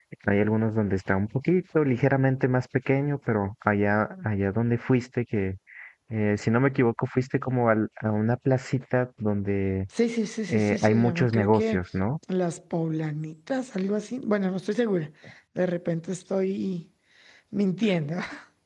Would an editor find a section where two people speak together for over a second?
Yes, from 10.5 s

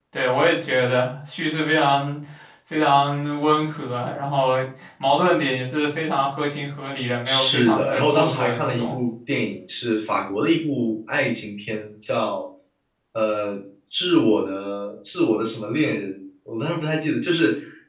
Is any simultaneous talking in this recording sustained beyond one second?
Yes, from 7.2 s

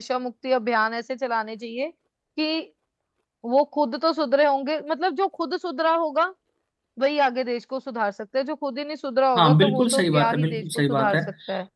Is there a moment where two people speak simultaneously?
Yes, from 9.3 s

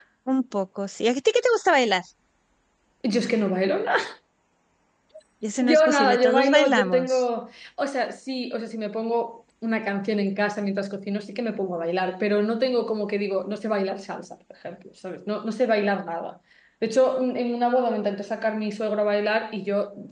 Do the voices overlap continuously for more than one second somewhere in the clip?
Yes, from 5.6 s

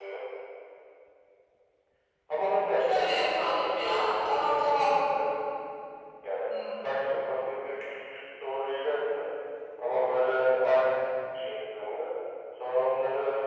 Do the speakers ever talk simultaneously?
Yes, from 2.8 s

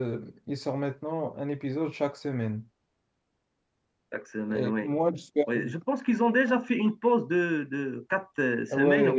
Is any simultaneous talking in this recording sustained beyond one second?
No

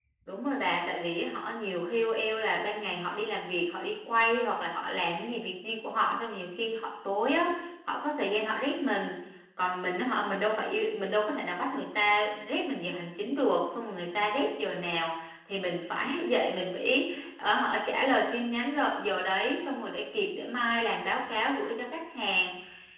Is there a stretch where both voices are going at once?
No

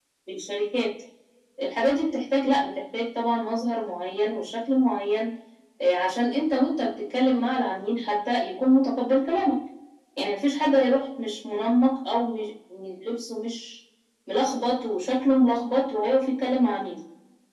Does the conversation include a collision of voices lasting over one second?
No

